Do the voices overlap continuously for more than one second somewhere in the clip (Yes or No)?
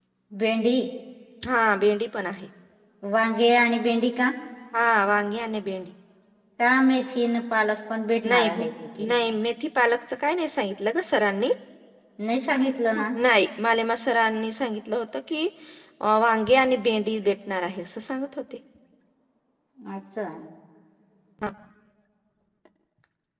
No